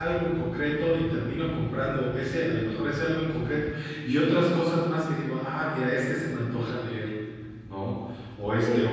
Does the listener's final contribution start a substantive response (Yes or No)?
No